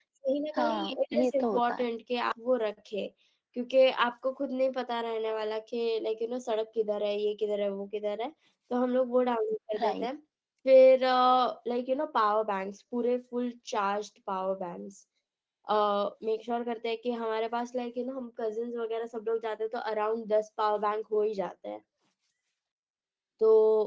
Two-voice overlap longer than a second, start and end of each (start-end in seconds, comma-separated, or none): 0.6-1.8